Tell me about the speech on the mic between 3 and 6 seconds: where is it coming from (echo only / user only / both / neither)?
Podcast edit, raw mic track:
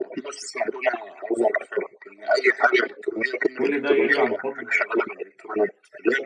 both